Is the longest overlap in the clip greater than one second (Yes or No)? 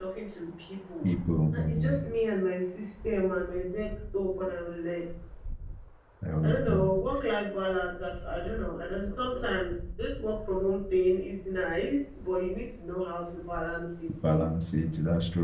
No